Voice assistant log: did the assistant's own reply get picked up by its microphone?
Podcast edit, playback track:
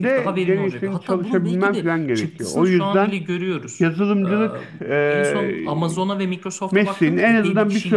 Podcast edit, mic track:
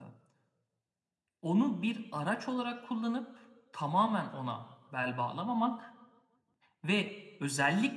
No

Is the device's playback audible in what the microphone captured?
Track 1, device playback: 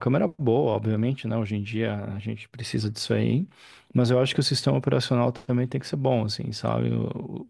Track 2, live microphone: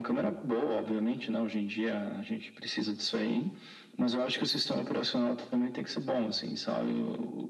Yes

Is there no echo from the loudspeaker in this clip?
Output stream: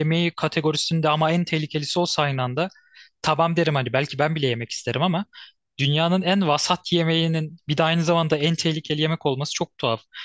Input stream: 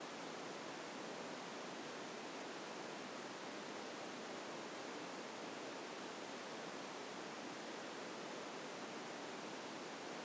Yes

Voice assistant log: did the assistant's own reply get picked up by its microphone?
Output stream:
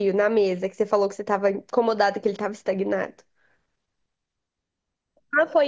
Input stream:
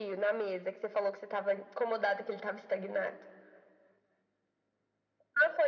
Yes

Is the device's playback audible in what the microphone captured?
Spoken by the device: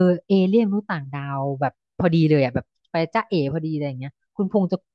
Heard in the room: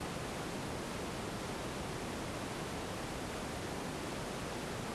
No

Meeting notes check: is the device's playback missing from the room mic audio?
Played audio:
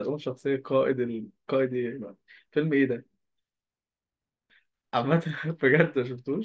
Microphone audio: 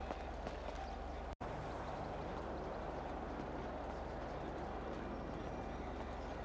Yes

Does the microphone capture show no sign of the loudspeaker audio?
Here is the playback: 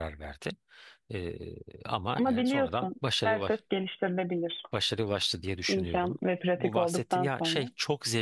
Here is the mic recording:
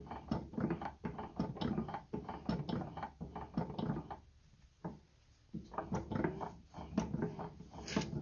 Yes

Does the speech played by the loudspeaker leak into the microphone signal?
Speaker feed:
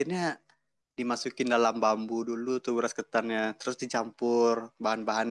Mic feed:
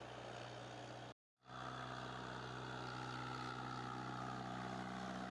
No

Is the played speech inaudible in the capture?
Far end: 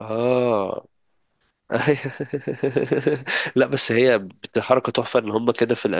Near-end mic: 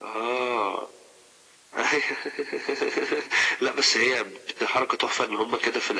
No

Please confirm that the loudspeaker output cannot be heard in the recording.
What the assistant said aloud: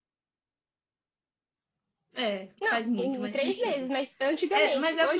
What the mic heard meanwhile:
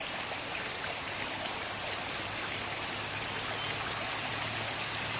Yes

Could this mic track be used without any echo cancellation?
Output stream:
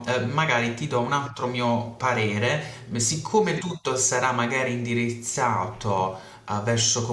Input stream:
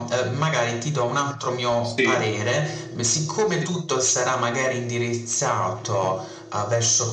No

